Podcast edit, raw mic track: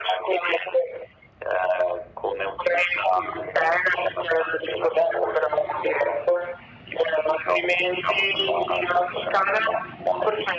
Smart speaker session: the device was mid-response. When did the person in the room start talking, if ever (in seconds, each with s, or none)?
none